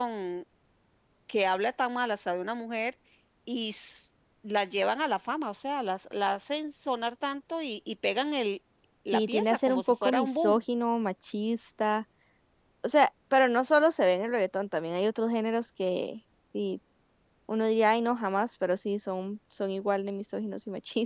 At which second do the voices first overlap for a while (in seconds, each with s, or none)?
9.1 s